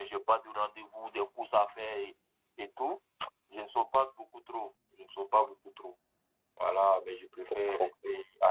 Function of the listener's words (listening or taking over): listening